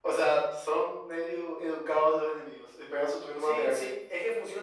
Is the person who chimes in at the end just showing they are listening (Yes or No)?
No